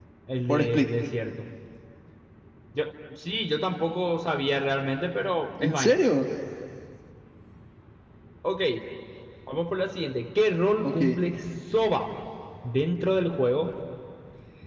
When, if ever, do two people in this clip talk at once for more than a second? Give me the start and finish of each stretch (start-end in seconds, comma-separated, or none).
none